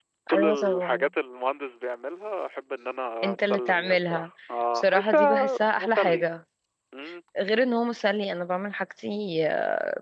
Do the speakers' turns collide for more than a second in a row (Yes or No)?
Yes